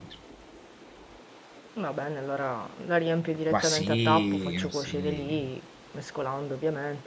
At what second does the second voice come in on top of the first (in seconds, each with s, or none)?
3.5 s